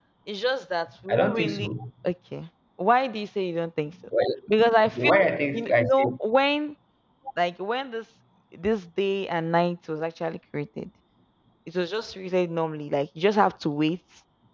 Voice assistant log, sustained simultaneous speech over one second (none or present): present